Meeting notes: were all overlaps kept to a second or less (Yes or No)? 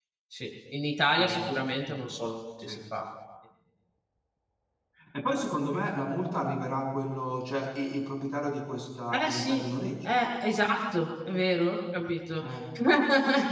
Yes